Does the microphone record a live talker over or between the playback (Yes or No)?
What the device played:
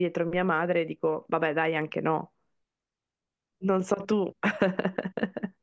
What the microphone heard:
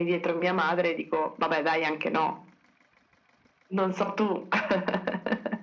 No